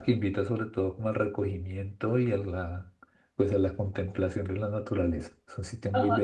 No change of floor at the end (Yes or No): No